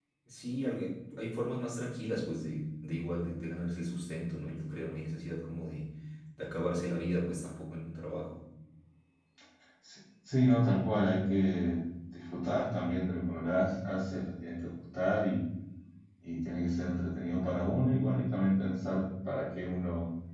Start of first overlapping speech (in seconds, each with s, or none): none